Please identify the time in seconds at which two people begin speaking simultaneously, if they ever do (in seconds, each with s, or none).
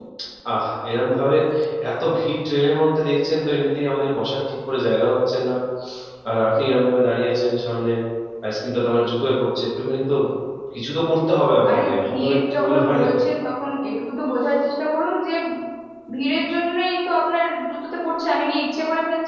11.6 s